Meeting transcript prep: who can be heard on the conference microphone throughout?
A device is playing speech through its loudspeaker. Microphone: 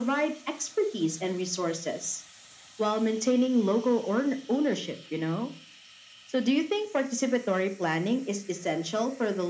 echo only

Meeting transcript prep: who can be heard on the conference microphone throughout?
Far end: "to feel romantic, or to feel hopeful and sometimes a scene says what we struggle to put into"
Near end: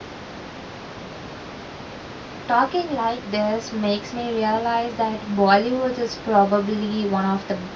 user only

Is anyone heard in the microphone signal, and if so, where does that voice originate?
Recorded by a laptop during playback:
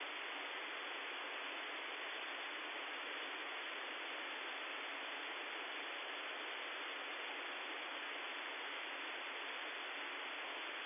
neither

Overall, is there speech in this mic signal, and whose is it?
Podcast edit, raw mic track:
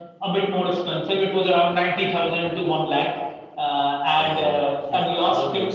both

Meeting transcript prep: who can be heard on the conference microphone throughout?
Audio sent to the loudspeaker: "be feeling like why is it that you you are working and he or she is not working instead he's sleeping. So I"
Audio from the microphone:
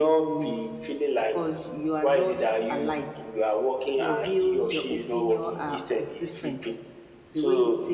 both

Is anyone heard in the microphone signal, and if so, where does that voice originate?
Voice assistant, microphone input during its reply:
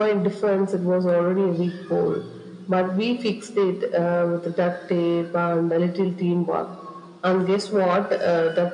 echo only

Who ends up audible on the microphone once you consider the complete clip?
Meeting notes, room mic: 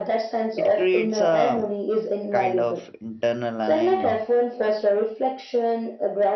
both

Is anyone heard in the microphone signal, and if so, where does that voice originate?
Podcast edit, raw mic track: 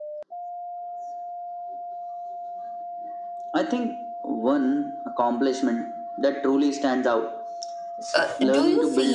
both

